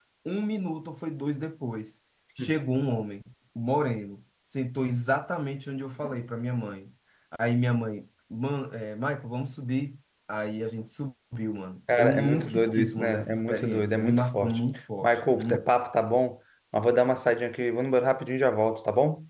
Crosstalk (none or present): present